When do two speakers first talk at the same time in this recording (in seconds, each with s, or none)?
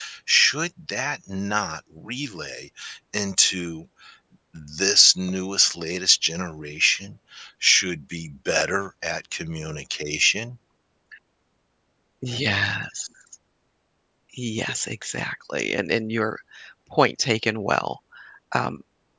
none